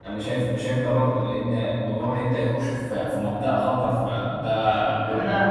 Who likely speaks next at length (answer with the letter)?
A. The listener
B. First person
A